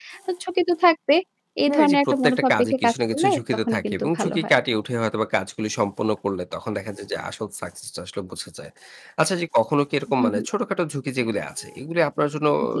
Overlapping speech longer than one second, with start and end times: 1.7-4.5

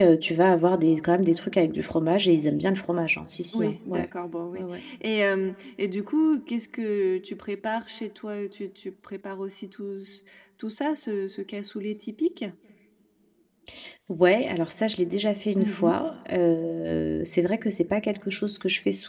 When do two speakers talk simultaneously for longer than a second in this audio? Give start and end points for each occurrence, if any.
none

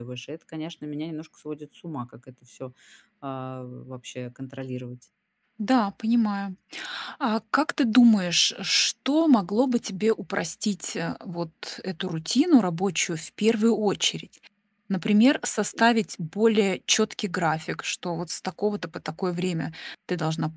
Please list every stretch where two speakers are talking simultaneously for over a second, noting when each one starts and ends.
none

